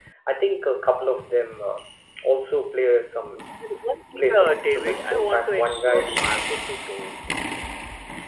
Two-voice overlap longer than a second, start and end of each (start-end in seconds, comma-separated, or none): 4.2-6.0